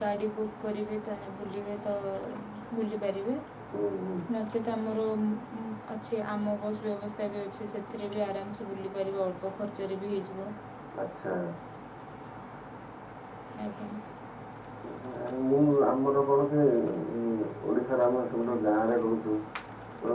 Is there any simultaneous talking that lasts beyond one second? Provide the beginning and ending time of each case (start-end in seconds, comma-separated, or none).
none